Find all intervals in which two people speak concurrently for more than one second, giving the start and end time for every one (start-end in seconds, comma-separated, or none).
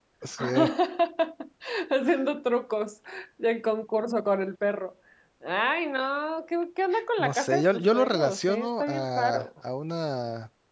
7.2-9.4